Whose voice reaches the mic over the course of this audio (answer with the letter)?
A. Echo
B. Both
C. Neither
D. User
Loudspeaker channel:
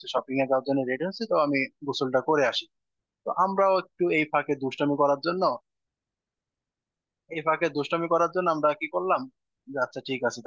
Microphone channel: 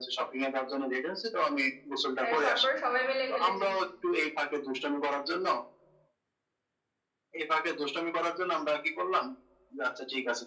B